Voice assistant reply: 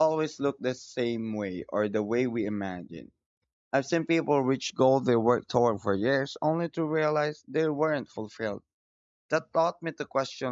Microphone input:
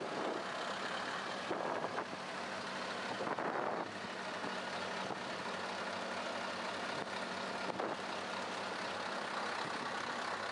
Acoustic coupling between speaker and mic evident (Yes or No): No